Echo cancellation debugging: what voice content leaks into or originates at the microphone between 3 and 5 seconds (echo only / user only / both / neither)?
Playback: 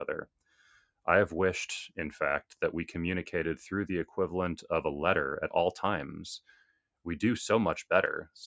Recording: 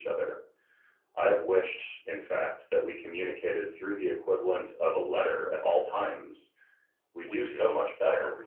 echo only